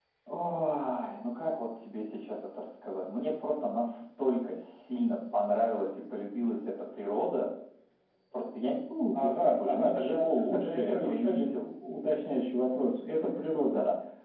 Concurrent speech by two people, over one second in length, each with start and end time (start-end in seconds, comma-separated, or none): 9.1-11.5